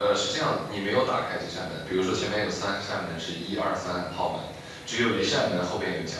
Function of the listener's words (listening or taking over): listening